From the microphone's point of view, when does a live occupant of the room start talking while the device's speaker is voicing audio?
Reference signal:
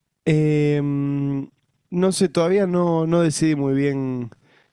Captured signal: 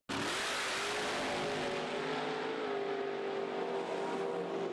none

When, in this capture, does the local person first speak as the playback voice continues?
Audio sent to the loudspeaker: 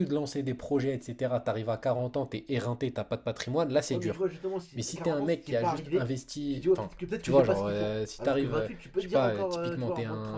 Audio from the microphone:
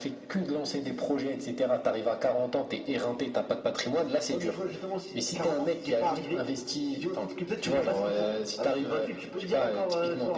none

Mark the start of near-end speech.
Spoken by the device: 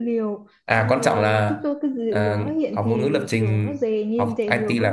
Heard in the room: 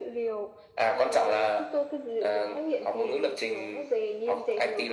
none

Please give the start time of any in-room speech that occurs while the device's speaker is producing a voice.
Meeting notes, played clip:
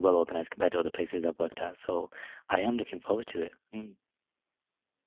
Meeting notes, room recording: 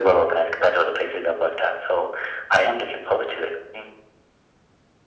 none

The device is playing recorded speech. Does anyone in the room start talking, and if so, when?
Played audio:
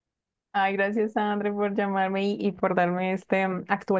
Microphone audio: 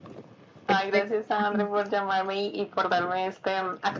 0.7 s

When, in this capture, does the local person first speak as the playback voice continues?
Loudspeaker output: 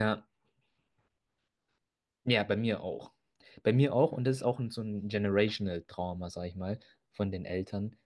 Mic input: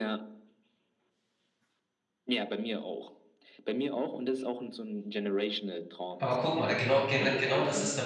6.2 s

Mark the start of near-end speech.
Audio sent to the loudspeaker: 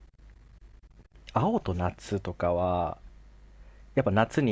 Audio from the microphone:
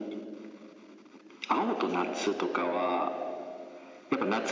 none

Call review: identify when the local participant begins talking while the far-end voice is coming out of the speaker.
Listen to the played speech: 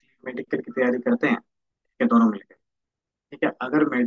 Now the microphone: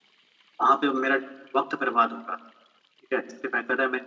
0.6 s

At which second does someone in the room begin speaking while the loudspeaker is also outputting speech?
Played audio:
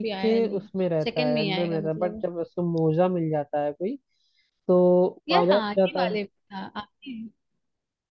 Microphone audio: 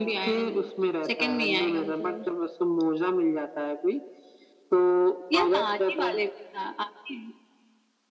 none

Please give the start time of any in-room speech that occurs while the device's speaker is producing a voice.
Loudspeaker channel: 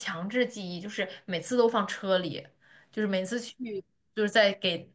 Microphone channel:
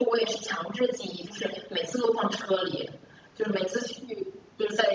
none

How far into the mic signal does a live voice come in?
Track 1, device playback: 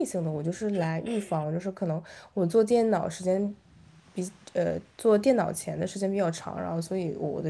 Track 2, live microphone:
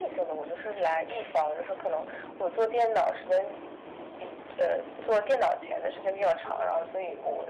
none

